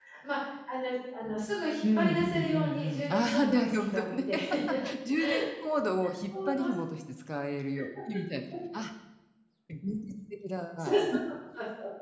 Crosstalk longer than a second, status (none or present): present